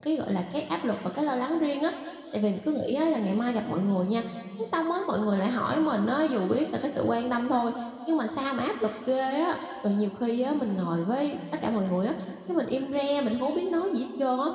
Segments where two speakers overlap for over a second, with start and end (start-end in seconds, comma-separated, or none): none